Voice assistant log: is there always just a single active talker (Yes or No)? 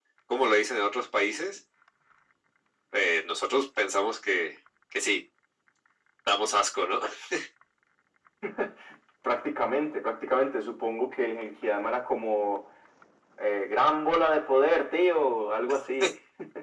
Yes